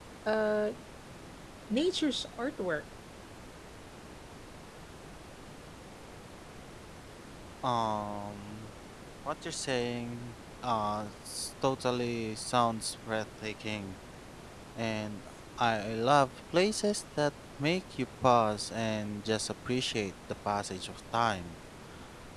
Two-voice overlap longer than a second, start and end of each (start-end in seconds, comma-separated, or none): none